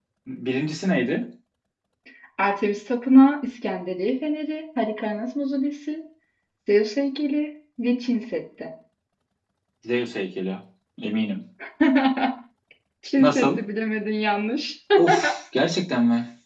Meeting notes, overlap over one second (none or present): none